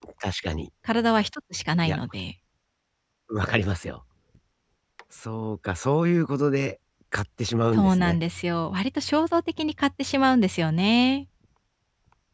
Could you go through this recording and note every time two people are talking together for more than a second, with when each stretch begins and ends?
none

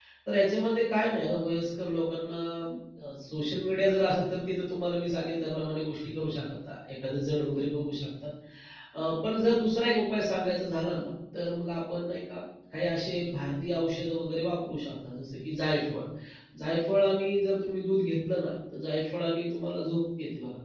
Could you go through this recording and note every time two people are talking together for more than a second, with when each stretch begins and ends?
none

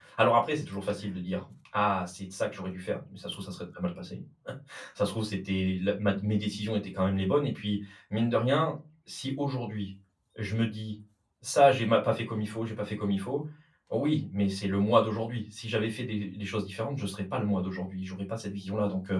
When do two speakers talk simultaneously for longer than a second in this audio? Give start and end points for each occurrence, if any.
none

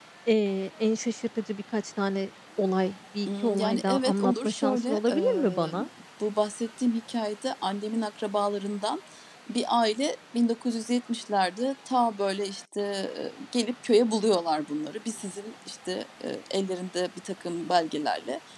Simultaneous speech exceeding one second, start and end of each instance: 3.3-5.8

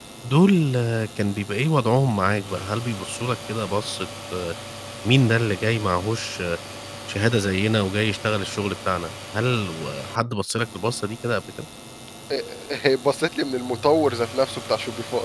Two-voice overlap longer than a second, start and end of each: none

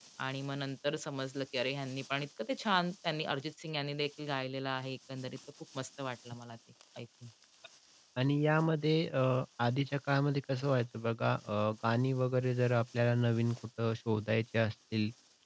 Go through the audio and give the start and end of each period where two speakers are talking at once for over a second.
none

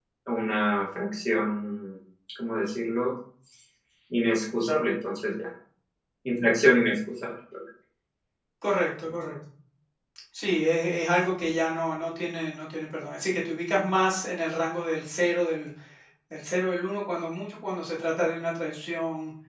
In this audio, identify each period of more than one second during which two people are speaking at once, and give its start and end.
none

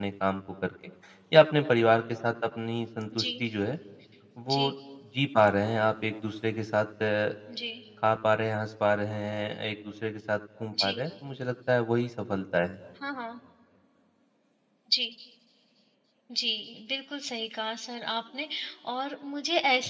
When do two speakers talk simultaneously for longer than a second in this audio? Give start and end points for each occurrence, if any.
none

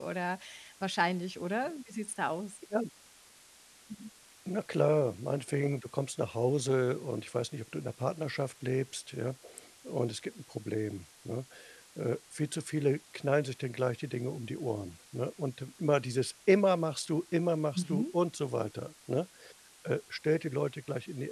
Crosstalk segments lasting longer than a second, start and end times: none

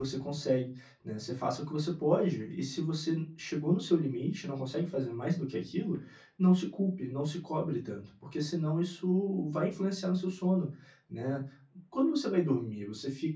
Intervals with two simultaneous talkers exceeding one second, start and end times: none

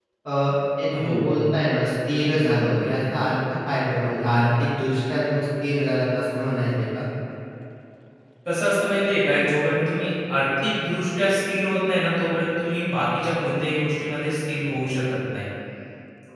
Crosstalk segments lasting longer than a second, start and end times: none

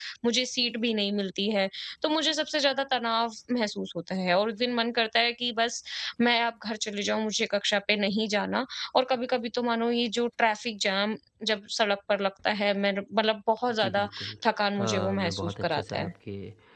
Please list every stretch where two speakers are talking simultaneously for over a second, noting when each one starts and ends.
14.8-16.1

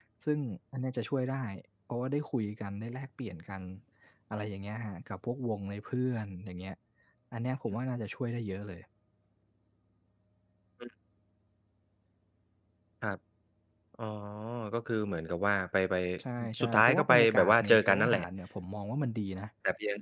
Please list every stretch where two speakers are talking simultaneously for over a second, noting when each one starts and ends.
16.6-18.2

